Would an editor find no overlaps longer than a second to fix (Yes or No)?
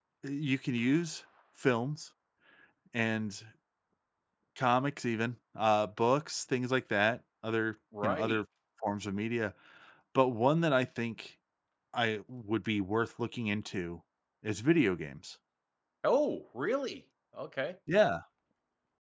Yes